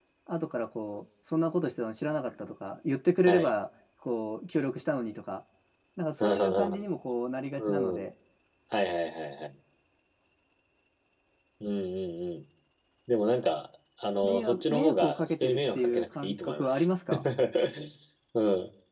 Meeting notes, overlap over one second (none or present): present